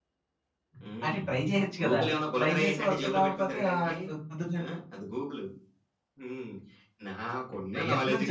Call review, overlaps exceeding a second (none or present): present